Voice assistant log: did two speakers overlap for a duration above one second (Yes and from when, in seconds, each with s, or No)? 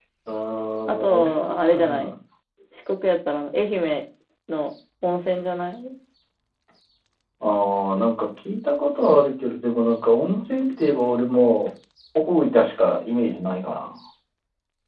Yes, from 0.9 s